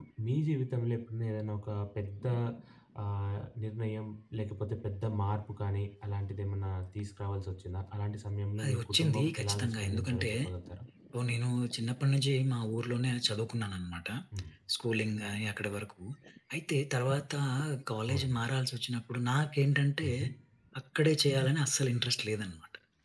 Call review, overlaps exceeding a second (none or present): present